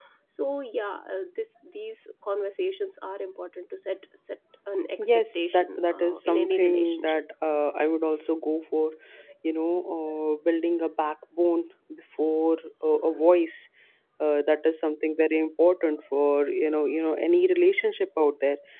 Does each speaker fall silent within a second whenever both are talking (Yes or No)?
No